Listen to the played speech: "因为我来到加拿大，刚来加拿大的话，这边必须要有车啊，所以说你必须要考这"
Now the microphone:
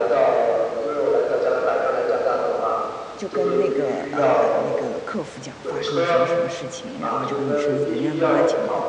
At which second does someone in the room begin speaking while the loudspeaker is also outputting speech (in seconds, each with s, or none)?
3.1 s